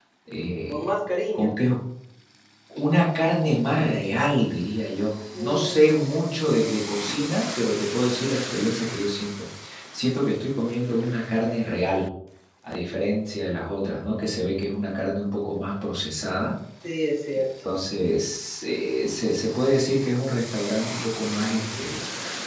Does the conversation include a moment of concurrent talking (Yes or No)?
Yes